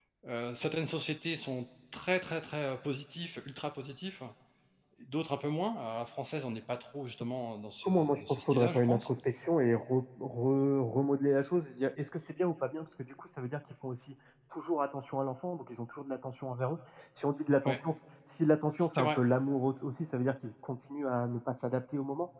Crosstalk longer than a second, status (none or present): present